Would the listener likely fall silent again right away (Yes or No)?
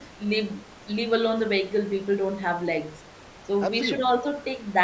Yes